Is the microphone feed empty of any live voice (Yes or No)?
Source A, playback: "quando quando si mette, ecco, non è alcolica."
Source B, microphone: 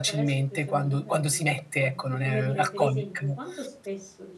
No